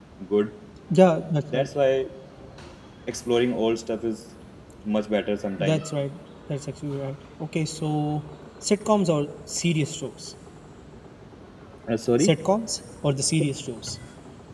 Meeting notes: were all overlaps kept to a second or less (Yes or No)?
Yes